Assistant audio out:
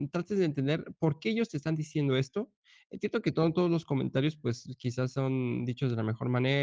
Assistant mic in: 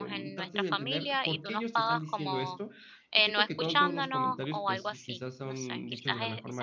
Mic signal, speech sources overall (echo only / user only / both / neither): both